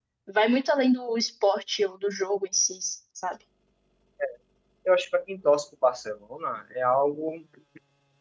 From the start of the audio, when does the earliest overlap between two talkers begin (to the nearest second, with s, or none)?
none